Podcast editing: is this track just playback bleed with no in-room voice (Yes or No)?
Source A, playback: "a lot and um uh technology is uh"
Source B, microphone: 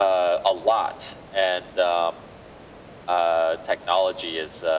Yes